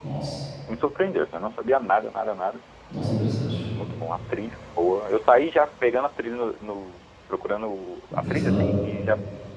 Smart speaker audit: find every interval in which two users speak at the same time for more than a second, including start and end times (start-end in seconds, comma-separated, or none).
none